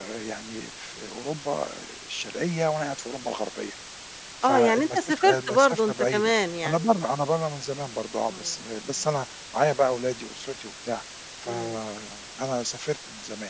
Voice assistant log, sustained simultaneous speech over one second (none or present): present